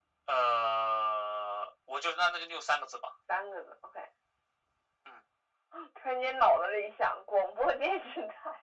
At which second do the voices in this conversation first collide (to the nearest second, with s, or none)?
none